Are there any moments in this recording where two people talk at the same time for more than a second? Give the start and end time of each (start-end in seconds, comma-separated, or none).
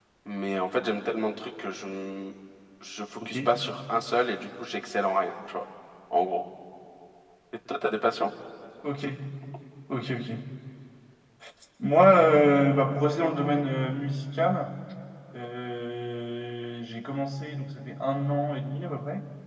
none